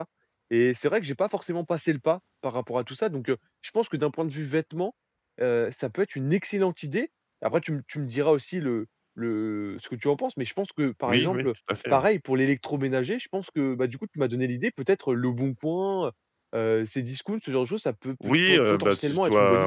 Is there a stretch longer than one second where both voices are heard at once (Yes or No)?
Yes